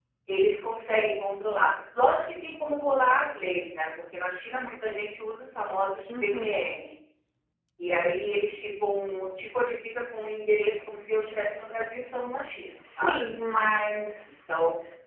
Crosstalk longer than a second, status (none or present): none